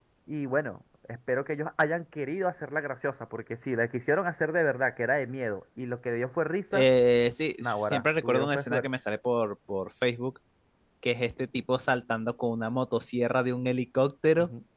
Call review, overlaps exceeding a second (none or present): present